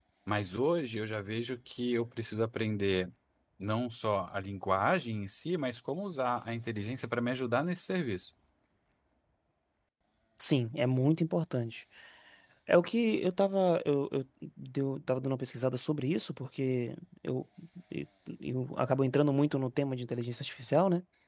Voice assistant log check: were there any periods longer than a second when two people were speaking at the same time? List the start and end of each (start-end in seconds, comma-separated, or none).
none